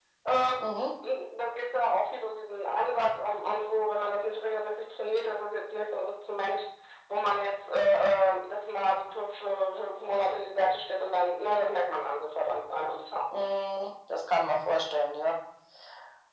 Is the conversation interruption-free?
Yes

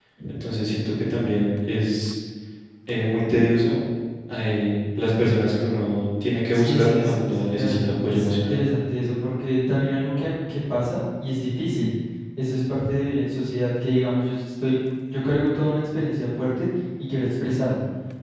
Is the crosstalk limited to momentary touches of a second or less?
No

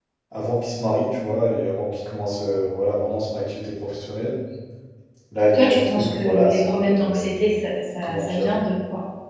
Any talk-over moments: Yes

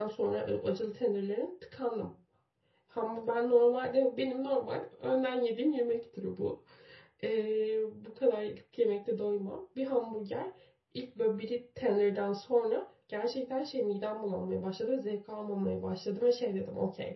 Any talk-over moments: No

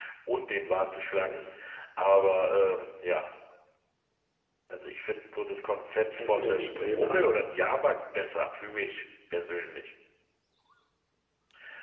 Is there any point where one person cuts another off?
Yes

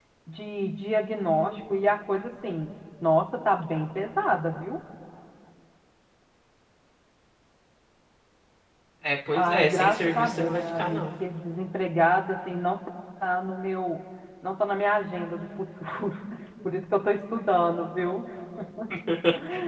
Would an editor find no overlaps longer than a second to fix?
No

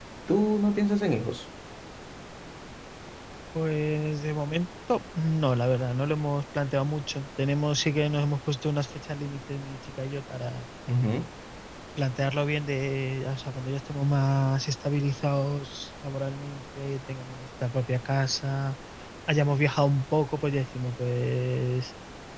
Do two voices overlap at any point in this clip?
No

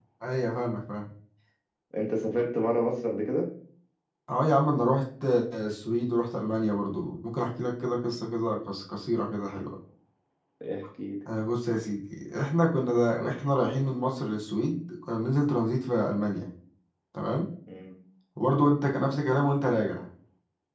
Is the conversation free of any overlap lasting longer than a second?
Yes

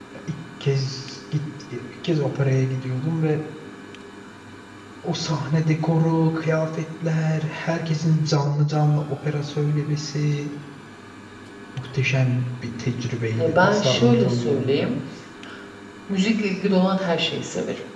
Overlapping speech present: Yes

